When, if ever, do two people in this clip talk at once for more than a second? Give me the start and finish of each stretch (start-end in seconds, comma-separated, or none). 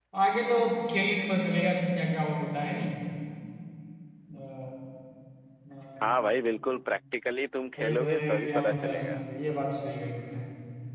7.8-9.2